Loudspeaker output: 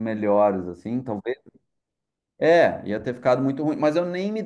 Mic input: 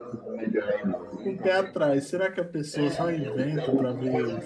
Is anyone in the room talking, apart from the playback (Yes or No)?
Yes